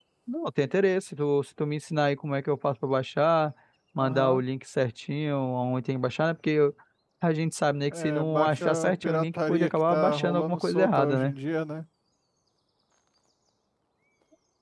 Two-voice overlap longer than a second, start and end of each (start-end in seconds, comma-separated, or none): 7.9-11.3